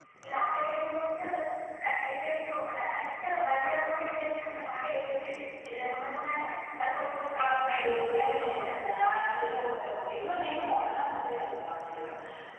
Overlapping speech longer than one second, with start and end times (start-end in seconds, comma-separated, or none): 7.4-9.0